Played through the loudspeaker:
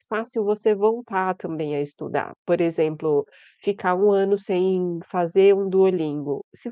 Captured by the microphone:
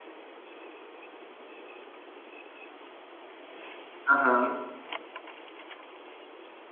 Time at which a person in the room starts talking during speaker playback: 4.0 s

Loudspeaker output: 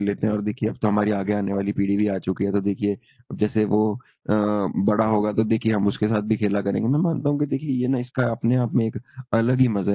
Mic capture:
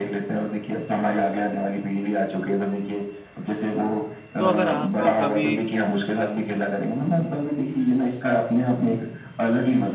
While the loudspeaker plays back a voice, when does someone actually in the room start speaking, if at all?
4.4 s

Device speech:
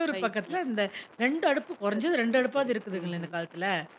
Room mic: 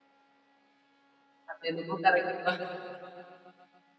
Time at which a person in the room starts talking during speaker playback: 1.5 s

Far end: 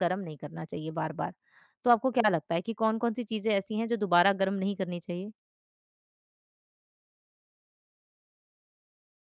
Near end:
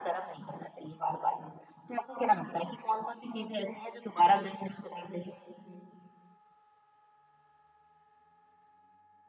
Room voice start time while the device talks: none

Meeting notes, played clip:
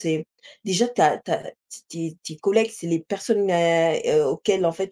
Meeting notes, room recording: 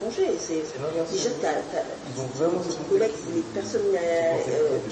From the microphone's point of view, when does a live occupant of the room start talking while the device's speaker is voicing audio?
0.6 s

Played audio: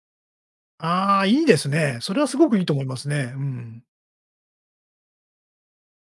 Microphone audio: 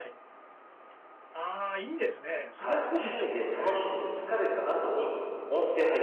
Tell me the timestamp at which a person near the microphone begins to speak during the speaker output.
2.6 s

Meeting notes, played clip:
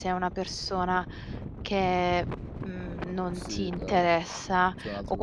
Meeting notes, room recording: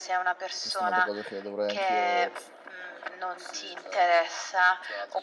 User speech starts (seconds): 0.6 s

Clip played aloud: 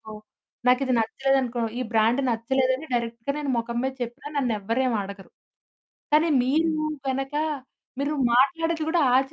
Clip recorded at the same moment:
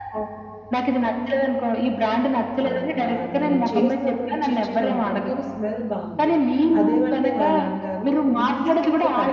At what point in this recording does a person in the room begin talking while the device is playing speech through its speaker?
2.6 s

